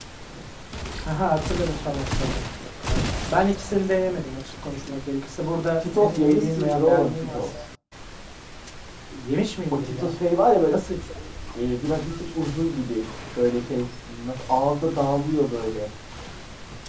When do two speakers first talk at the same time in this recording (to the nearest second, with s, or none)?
6 s